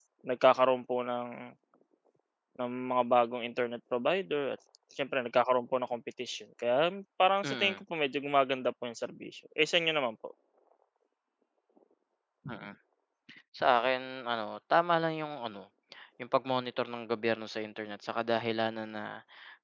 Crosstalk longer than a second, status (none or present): none